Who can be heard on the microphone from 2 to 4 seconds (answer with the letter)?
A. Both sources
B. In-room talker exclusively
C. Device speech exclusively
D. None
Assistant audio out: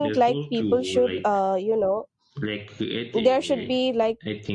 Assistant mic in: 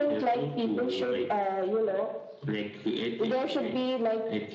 C